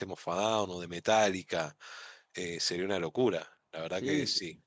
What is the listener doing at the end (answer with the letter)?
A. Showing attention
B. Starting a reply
B